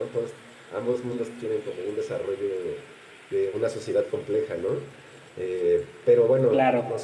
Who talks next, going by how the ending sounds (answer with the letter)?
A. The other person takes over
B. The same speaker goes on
B